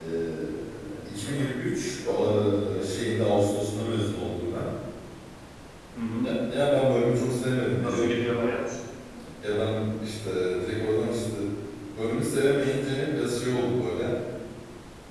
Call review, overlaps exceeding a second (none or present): none